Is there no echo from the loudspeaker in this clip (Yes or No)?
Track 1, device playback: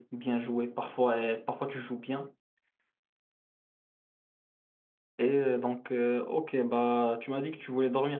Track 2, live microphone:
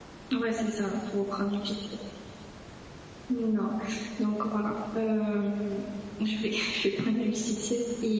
Yes